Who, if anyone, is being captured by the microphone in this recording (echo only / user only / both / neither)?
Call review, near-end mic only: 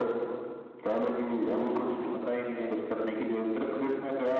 echo only